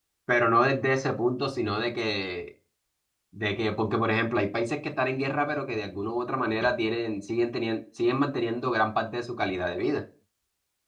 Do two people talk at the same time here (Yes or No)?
No